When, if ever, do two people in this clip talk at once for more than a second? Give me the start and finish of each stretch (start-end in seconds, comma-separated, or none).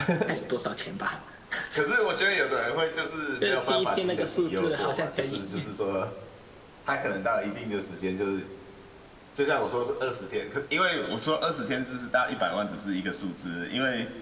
3.4-5.4